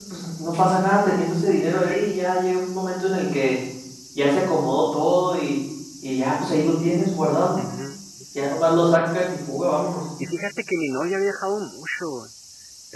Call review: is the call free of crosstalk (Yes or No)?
Yes